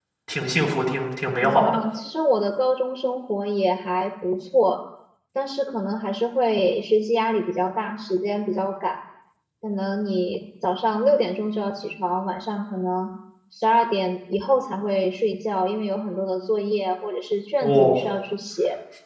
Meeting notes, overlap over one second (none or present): none